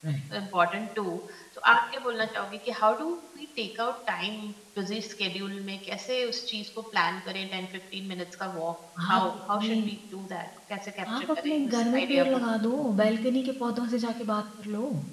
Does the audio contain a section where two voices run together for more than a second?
Yes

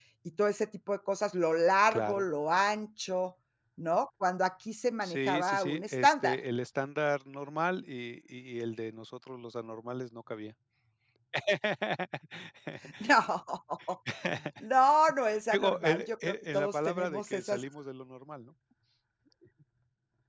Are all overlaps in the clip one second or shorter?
No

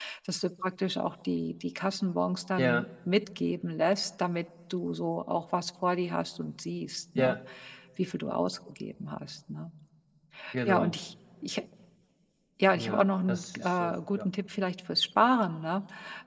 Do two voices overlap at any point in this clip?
Yes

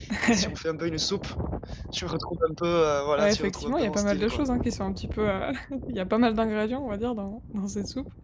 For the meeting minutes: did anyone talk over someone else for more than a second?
Yes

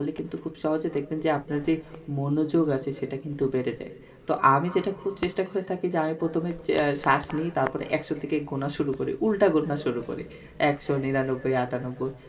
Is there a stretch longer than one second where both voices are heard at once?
No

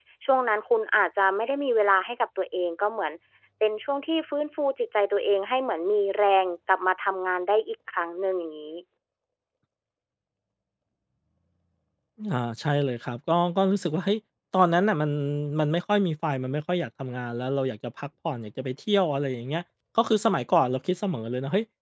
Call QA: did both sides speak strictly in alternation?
Yes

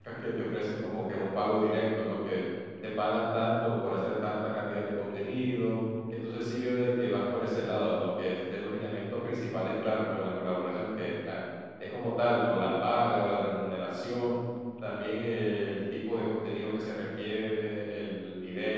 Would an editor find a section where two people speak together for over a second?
No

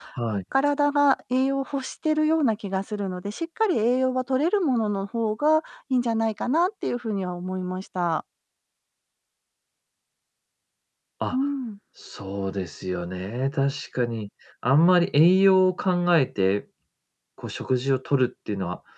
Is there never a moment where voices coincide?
Yes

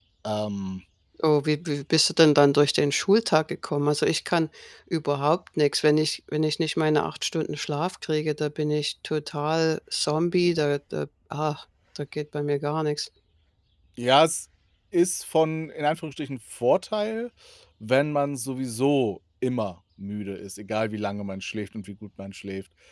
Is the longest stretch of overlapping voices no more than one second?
Yes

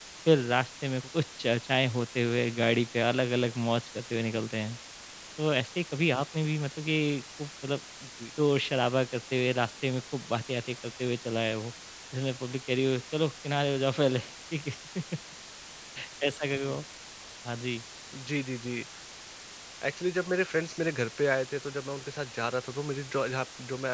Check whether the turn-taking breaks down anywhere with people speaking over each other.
No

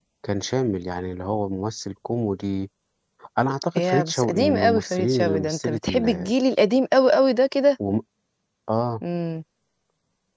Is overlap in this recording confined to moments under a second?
No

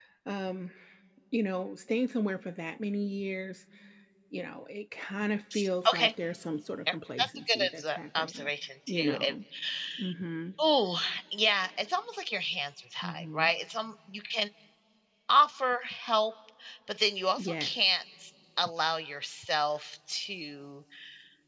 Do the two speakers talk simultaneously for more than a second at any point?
Yes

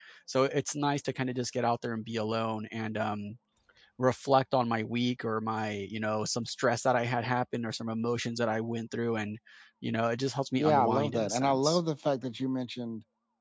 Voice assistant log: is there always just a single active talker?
No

